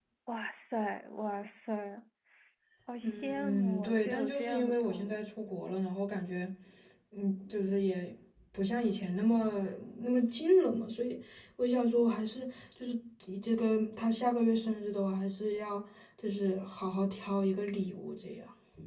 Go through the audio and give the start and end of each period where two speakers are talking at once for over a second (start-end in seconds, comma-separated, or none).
3.0-5.3